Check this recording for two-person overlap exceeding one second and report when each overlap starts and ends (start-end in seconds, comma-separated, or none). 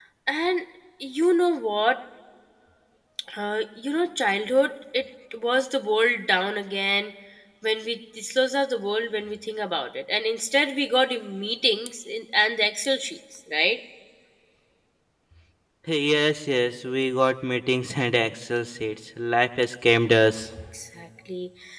none